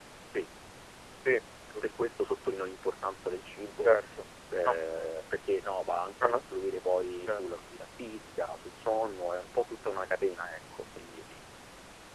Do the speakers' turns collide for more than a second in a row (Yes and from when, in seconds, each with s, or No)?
No